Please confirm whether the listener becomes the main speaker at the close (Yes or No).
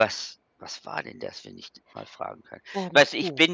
No